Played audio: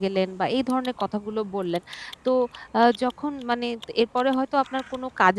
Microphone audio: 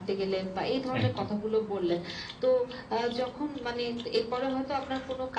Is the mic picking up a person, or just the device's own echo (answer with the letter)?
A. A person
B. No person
A